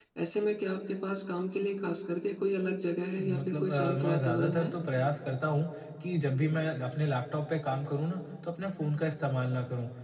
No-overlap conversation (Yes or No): No